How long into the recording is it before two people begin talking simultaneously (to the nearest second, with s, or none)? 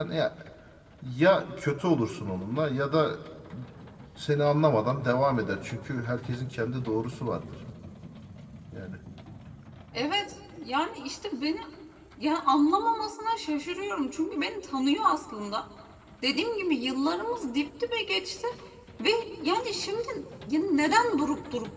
none